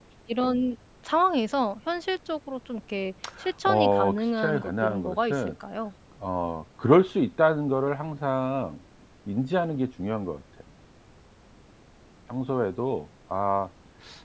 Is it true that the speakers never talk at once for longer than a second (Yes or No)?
No